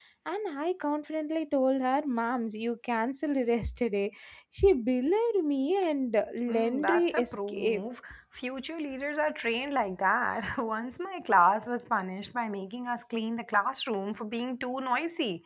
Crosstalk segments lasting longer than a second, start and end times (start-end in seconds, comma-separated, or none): 6.5-7.8